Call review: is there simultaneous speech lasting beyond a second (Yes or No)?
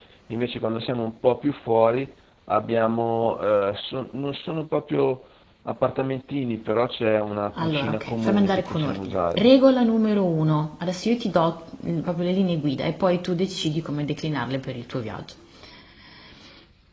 Yes